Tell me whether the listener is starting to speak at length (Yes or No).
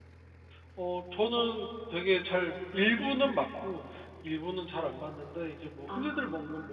No